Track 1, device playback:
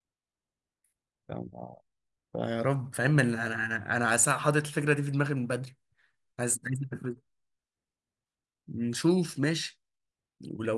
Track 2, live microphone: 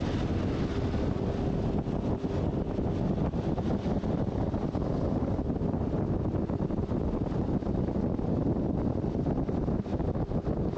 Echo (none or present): none